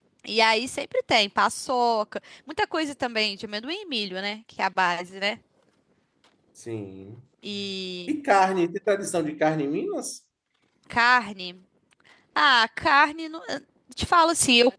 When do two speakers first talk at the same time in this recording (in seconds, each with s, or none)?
none